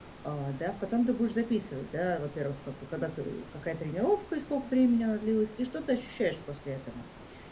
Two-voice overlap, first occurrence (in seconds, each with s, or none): none